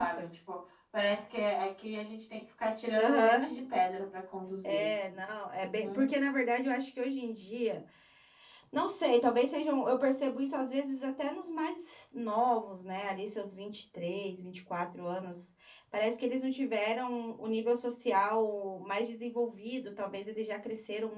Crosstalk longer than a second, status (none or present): none